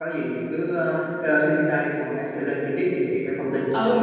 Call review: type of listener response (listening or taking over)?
taking over